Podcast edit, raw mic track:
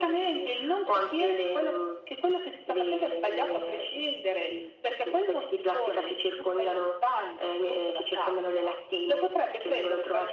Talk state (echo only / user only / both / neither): echo only